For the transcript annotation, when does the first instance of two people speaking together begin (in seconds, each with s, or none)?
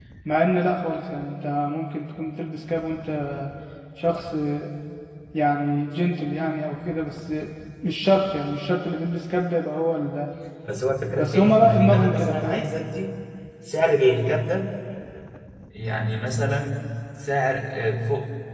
11.2 s